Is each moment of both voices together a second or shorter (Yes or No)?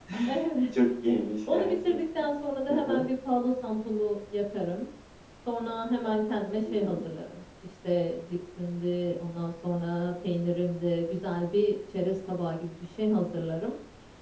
Yes